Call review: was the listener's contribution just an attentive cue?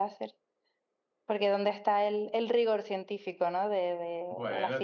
No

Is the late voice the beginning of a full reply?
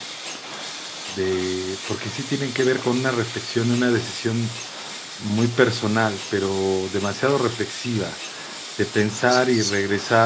No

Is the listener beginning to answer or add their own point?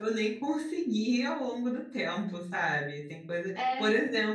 No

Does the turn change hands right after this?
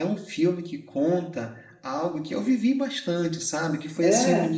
No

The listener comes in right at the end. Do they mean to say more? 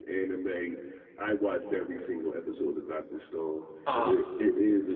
No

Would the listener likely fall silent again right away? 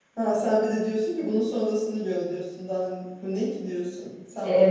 No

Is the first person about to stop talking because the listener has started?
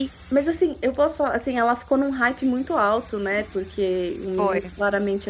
No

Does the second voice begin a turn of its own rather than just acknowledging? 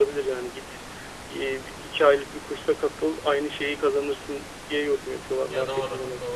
Yes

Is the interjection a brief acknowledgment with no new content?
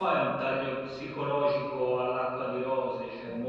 Yes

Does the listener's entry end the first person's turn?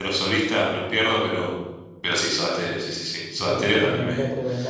Yes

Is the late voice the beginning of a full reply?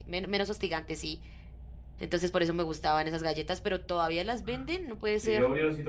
Yes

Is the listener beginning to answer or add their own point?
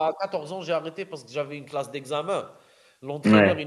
No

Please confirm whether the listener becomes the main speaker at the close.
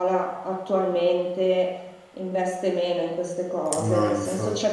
No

